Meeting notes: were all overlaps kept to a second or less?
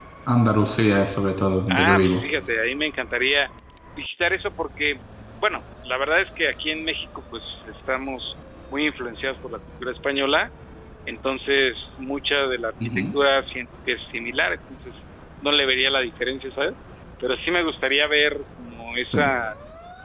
Yes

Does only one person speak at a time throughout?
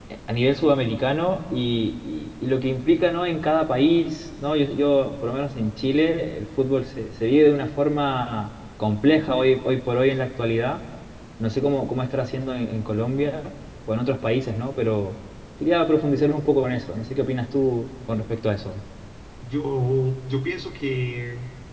Yes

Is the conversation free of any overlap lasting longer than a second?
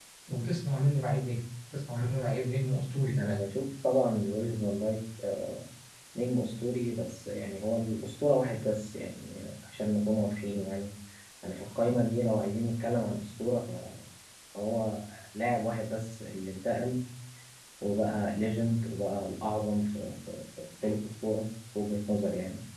Yes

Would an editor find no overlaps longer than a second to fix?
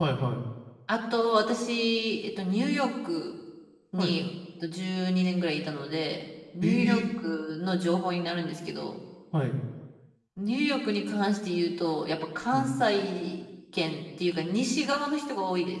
Yes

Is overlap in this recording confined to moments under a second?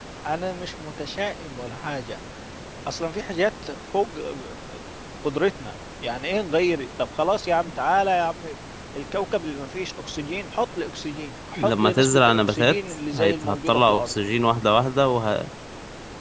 No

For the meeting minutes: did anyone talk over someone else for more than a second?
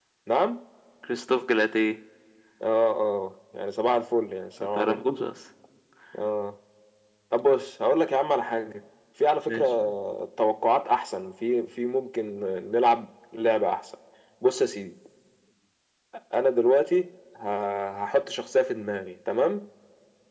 No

